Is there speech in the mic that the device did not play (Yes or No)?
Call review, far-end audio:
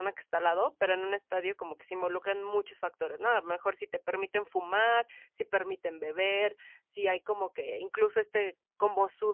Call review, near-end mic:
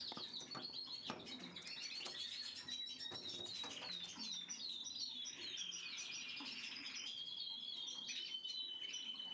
No